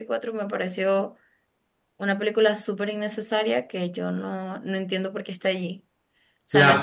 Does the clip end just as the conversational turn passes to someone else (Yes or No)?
Yes